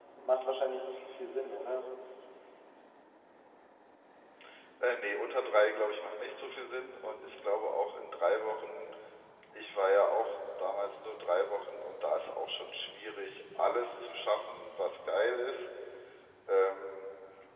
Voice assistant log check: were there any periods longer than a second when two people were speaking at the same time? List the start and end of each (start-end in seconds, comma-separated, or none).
none